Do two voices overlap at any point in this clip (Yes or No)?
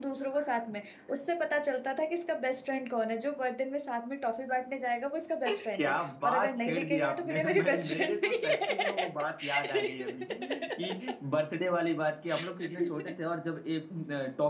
Yes